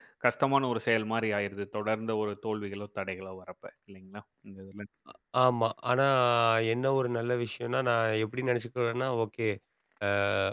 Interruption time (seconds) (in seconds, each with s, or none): none